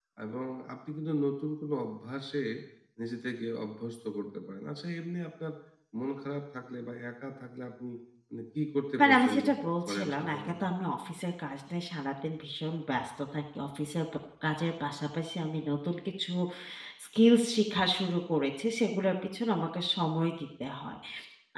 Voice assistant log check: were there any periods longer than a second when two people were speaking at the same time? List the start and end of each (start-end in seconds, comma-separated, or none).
9.0-10.7